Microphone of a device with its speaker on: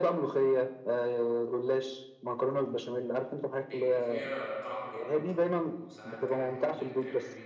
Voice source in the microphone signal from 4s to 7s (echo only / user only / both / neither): both